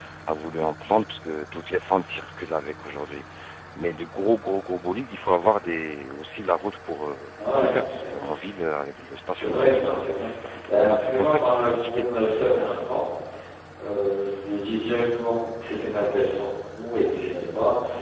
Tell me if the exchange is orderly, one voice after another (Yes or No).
No